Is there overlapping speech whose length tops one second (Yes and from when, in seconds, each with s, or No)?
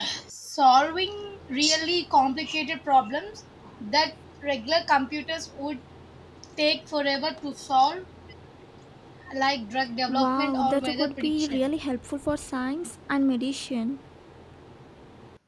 Yes, from 10.1 s